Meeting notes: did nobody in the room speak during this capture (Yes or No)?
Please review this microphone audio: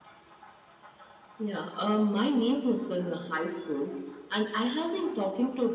Yes